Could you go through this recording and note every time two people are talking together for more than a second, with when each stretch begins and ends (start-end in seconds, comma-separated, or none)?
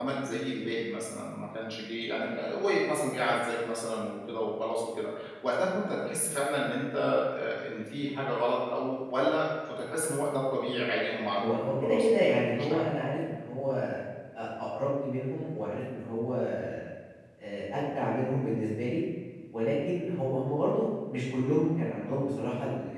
11.4-12.8